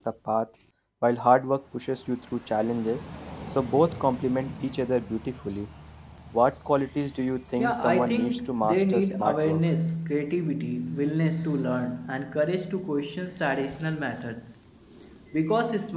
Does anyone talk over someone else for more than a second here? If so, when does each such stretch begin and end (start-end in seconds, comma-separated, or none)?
7.6-9.6